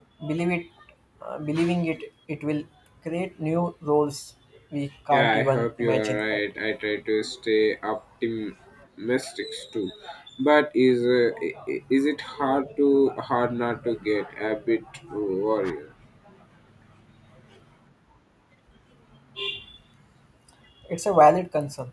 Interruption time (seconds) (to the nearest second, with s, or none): 5 s